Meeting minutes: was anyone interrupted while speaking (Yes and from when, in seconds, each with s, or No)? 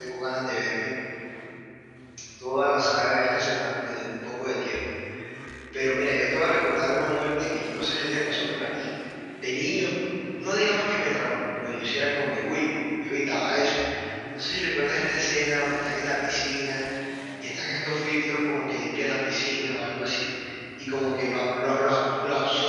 No